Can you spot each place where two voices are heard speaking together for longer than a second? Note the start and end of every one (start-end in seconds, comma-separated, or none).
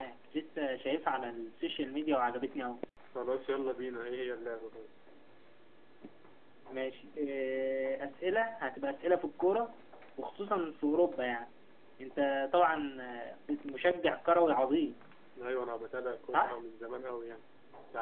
none